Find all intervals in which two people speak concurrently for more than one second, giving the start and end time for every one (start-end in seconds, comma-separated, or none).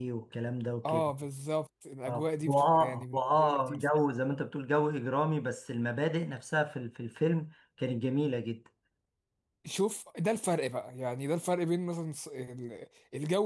2.1-3.9